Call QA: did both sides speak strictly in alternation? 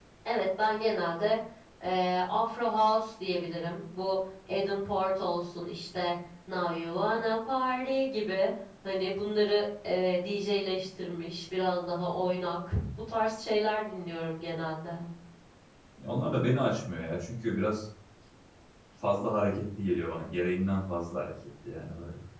Yes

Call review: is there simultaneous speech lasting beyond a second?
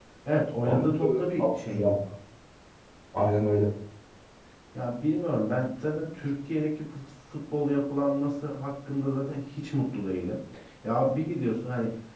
Yes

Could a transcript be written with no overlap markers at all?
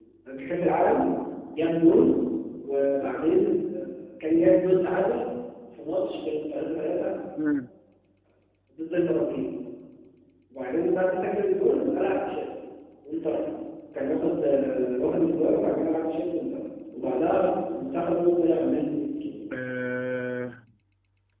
Yes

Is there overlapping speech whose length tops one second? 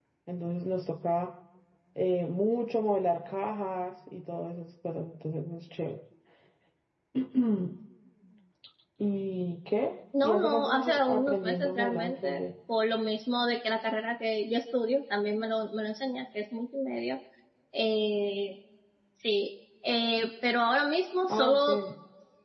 Yes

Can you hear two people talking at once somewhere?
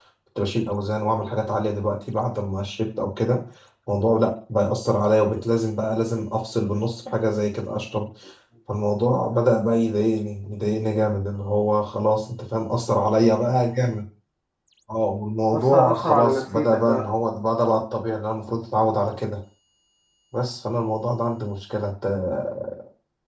Yes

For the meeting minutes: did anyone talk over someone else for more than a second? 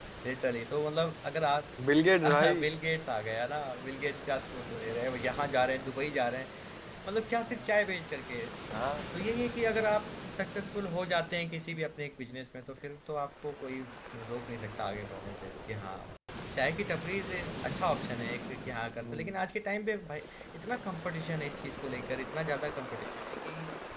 No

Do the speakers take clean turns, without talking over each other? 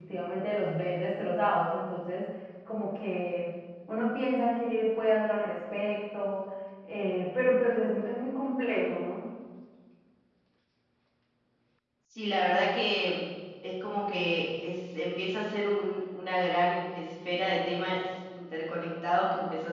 Yes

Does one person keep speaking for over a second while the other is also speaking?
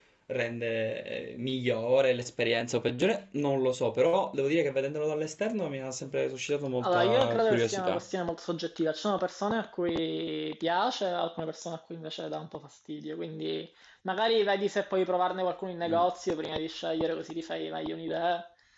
Yes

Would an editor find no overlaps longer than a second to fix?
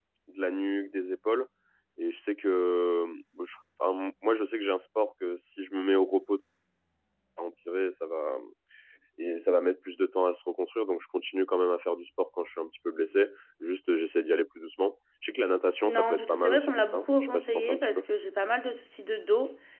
No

